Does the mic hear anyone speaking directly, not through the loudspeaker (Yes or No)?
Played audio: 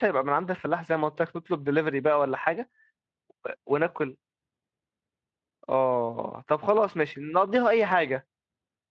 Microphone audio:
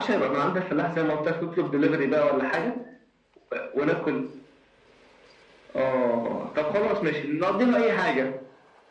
No